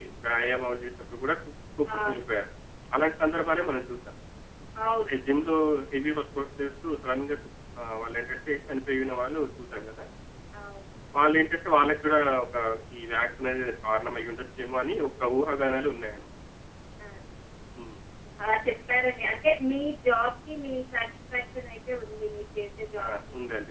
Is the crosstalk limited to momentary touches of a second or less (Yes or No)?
Yes